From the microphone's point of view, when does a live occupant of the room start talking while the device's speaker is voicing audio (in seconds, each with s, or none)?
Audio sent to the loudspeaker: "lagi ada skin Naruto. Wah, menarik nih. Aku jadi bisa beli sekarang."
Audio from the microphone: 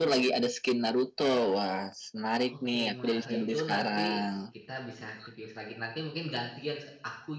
2.6 s